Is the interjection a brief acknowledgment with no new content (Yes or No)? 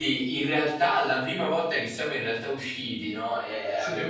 Yes